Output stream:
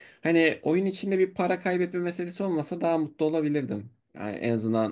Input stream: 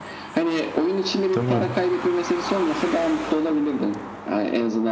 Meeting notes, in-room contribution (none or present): present